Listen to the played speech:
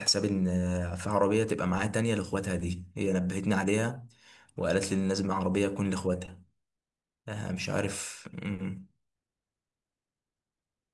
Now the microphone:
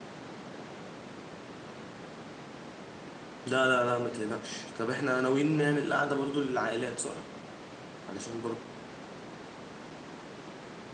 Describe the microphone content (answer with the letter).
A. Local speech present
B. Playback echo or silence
A